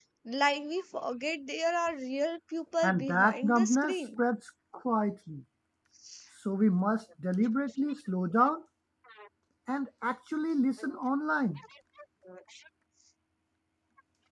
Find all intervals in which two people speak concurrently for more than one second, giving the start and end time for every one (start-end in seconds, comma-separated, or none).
2.8-4.2